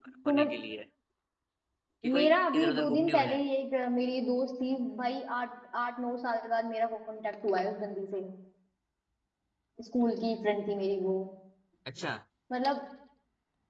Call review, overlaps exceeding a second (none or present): present